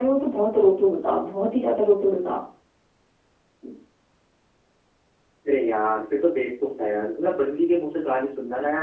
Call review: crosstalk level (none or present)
none